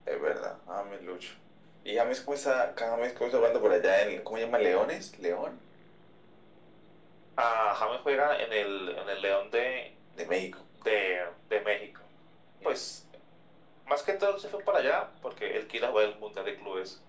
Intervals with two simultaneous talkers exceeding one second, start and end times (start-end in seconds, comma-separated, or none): none